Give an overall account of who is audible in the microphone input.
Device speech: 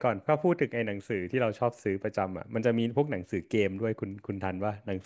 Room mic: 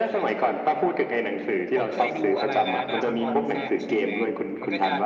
both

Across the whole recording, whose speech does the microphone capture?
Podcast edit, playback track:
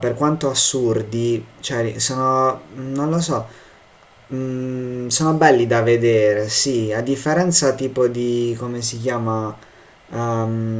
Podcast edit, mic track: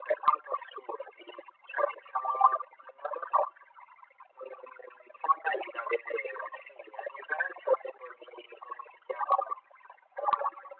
echo only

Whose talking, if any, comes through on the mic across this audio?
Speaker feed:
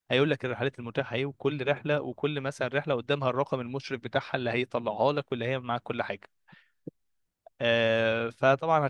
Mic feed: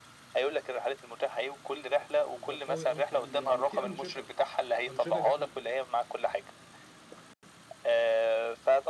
both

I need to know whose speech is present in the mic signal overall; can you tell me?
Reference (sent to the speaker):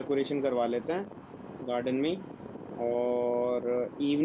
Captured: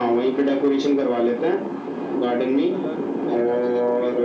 both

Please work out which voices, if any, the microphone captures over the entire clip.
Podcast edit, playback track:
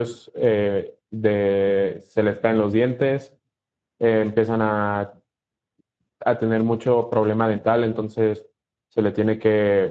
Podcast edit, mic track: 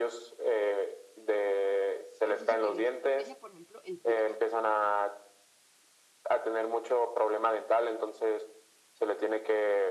both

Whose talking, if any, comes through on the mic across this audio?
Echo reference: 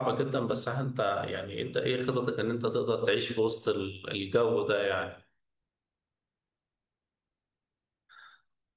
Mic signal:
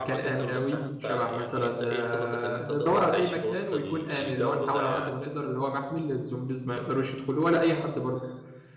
both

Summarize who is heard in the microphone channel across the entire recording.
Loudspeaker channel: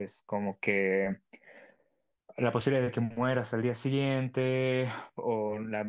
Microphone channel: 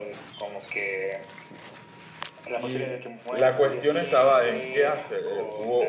both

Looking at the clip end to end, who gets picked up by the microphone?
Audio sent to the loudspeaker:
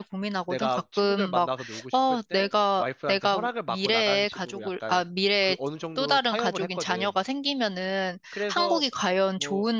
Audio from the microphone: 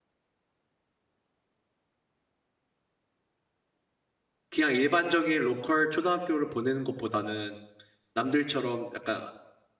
user only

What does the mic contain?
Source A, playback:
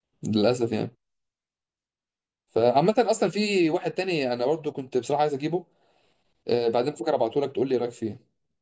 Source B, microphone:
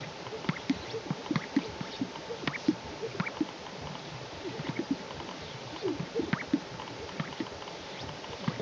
neither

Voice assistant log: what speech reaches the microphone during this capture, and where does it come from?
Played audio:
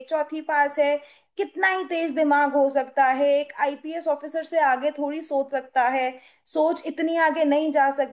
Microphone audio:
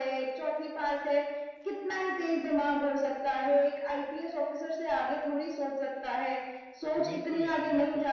both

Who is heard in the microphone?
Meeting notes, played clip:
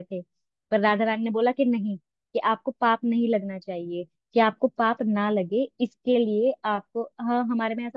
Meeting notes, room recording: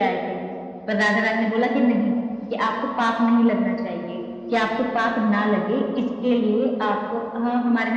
echo only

